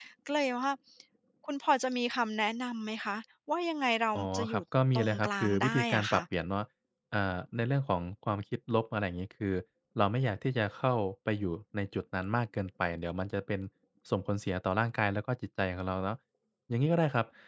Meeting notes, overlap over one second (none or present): present